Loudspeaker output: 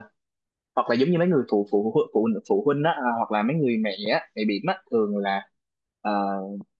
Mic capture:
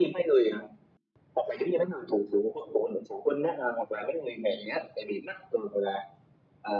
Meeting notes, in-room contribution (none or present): none